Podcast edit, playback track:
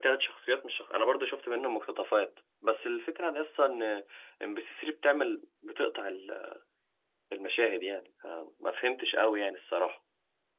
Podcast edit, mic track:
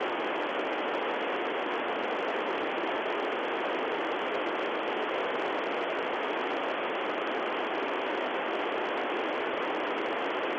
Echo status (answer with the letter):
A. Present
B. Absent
B